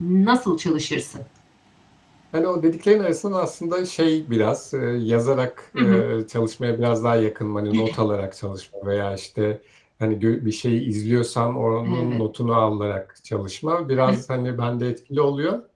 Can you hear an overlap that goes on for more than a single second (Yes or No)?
No